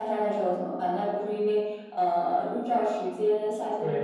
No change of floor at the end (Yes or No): No